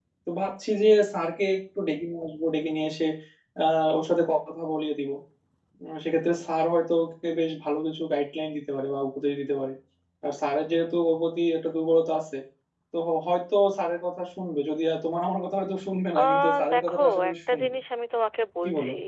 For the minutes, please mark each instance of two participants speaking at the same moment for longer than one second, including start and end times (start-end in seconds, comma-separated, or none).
16.2-17.7